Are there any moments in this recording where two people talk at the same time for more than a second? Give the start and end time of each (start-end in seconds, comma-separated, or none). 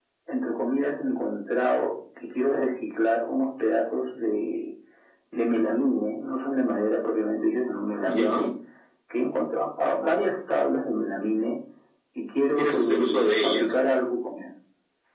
12.6-13.8